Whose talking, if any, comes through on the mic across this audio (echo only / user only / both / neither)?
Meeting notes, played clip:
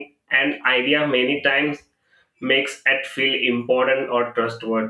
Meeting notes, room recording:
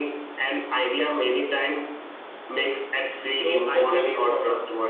both